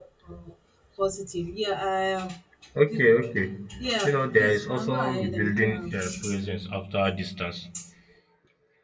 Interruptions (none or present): present